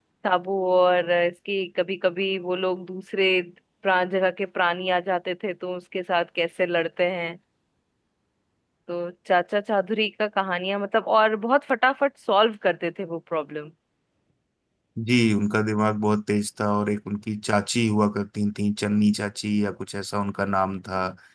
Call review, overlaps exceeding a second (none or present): none